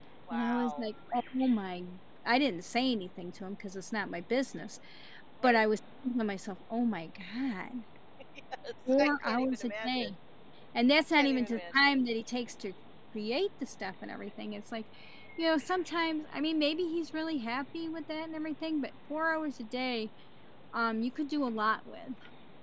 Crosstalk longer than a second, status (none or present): present